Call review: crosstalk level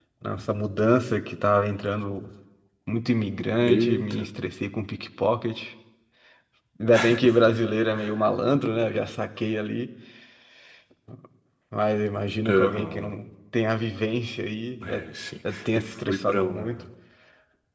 present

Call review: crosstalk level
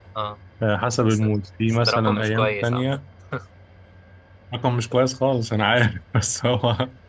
present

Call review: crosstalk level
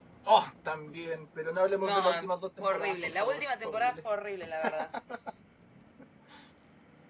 present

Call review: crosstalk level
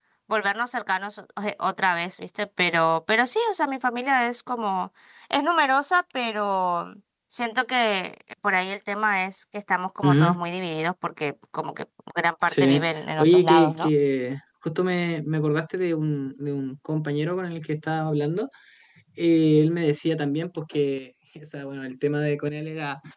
present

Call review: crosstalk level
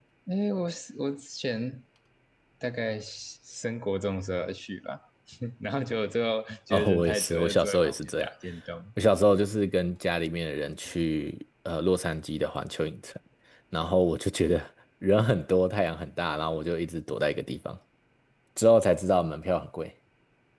present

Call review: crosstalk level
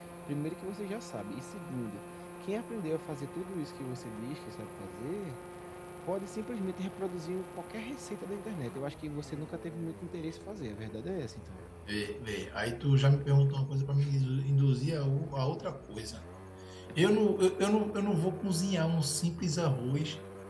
none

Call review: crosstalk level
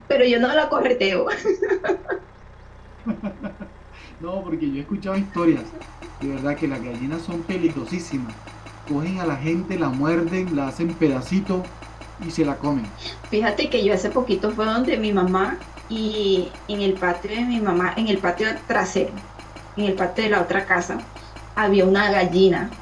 none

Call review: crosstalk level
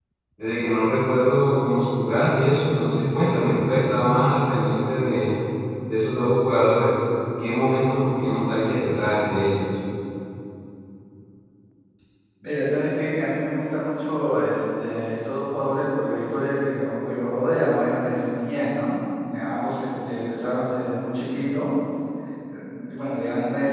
none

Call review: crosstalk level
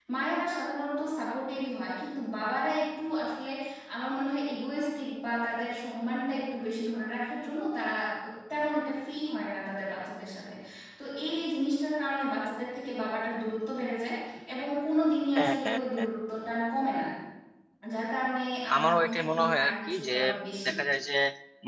present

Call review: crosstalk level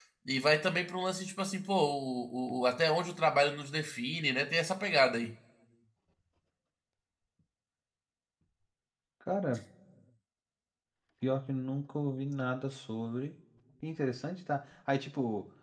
none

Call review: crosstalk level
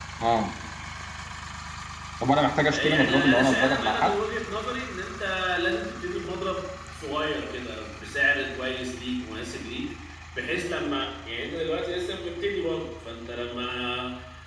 present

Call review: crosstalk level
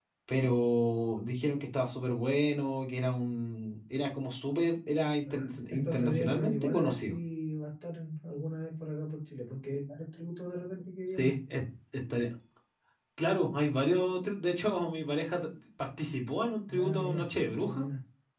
present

